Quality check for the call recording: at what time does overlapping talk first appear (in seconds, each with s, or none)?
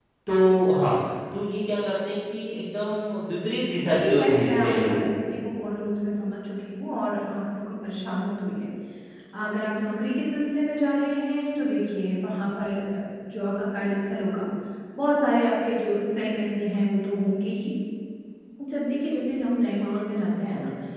4.0 s